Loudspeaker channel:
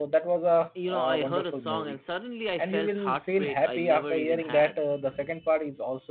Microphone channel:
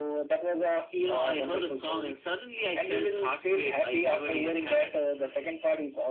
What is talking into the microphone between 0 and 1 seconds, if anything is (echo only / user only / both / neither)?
echo only